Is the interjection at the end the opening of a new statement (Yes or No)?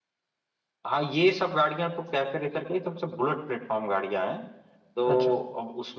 No